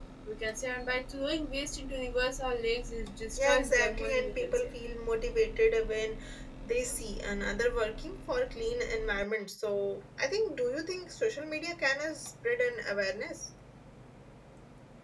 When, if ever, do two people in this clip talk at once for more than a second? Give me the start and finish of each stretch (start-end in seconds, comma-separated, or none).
3.4-4.7